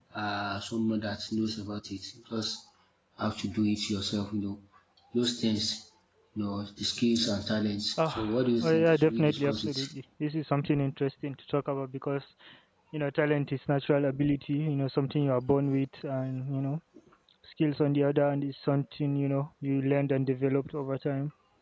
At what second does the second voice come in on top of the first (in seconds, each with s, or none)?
8.0 s